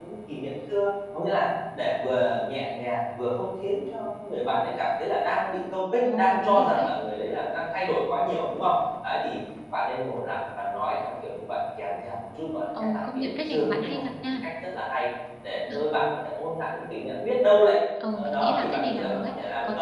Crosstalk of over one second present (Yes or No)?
Yes